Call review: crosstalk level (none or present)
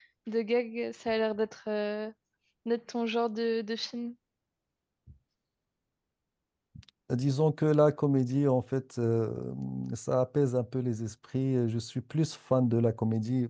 none